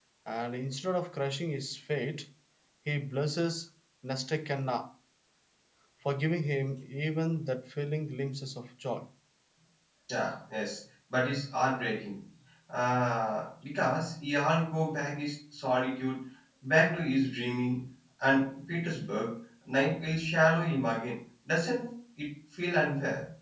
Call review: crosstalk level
none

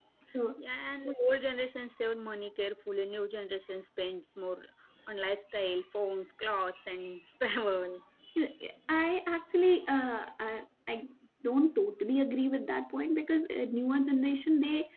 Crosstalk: none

